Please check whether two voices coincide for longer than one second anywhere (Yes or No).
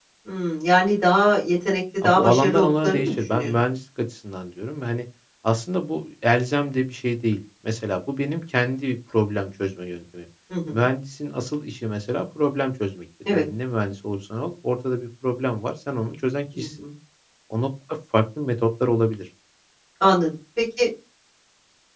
Yes